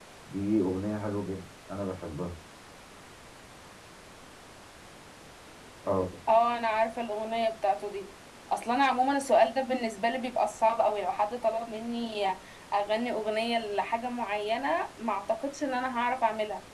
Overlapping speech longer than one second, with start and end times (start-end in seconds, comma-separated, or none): none